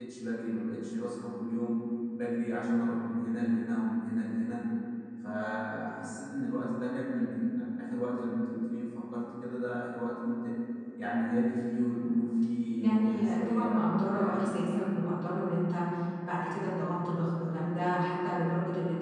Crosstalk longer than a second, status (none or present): present